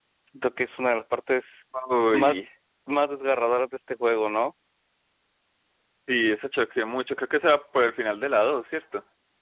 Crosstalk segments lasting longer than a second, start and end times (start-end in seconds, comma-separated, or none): none